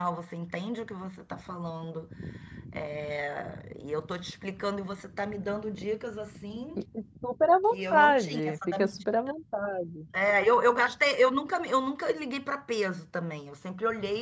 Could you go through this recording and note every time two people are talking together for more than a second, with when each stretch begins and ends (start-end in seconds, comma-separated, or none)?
7.7-9.1